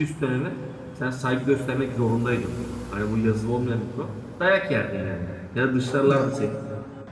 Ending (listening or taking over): listening